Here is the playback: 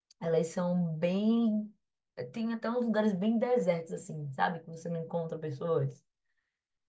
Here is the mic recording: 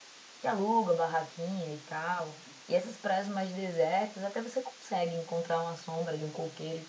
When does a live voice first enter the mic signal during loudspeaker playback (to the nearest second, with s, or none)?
0 s